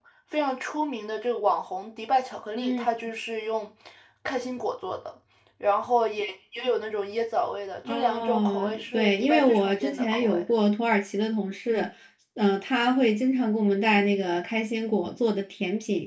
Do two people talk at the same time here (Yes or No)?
Yes